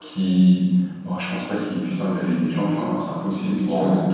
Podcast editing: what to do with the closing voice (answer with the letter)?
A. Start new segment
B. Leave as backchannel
B